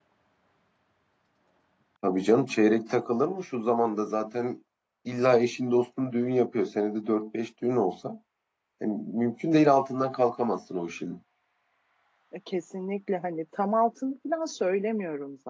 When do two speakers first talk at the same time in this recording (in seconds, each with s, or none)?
none